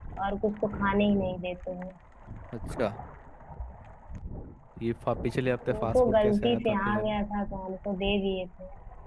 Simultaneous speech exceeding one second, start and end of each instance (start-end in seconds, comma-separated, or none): 5.7-7.2